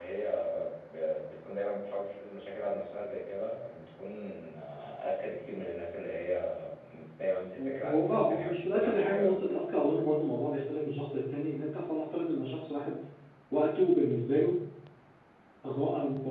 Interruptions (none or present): present